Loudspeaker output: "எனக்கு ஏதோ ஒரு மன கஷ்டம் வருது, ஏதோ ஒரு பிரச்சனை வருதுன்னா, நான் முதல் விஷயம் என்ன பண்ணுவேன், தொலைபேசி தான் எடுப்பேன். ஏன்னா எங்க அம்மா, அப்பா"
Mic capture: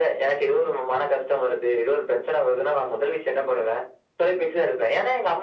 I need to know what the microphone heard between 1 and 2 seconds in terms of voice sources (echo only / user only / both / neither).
echo only